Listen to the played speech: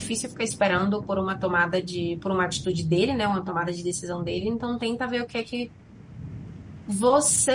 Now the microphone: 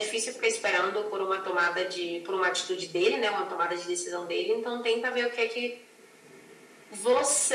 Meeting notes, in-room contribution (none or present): none